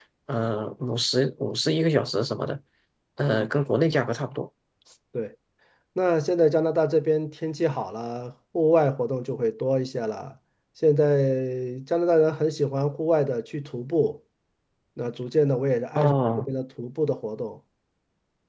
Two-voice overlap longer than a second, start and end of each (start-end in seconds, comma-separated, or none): none